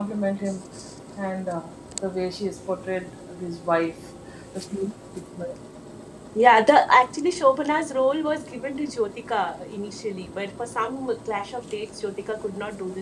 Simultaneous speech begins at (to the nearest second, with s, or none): none